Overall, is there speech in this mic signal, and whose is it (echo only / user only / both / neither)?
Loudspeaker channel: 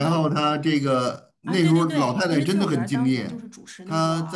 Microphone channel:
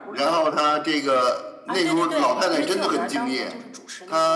echo only